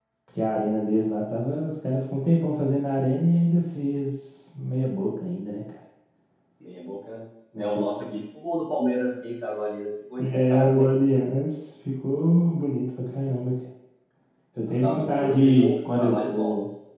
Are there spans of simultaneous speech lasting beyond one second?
Yes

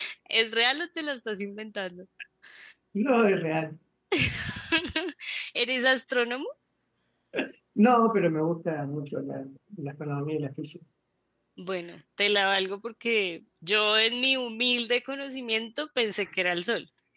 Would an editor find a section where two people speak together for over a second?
No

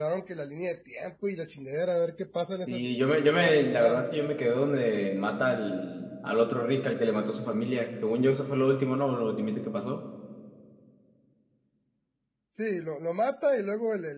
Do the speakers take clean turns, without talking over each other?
No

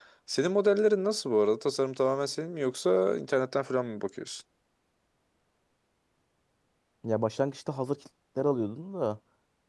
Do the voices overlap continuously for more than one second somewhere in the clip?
No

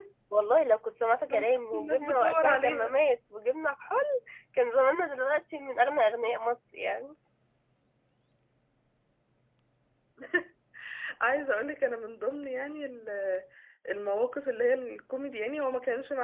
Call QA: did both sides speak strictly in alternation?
No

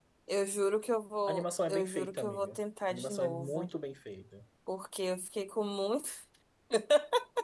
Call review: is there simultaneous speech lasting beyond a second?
Yes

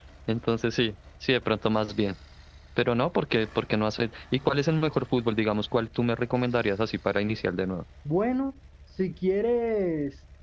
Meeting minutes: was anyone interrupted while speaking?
No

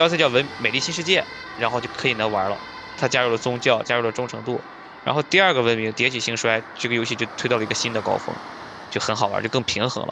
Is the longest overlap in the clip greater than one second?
No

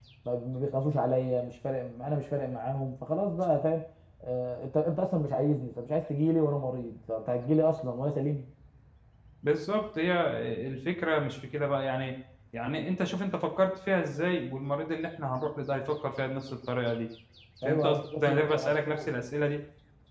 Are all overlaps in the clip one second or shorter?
No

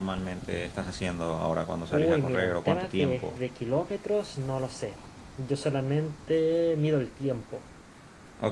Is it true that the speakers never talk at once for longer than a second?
No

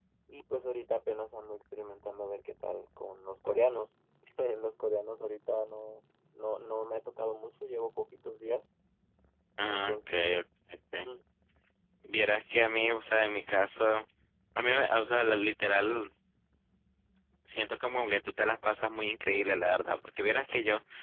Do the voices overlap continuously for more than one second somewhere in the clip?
No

